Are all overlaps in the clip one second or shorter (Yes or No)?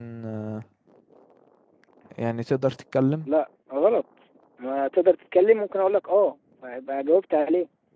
Yes